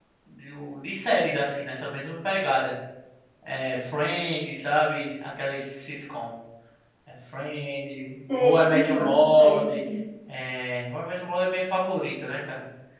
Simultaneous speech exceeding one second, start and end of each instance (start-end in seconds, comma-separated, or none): 8.4-9.8